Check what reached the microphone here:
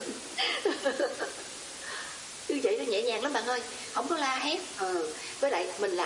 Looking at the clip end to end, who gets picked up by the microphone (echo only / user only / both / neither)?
echo only